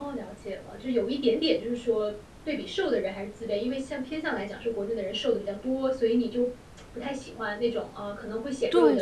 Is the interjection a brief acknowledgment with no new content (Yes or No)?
No